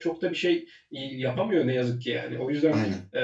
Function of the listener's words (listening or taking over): listening